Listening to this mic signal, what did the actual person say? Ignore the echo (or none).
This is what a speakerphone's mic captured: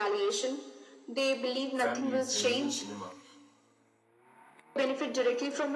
families and even cinema